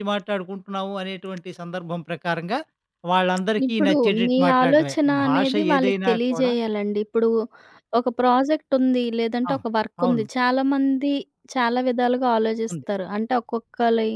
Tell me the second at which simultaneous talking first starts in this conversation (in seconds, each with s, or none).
3.7 s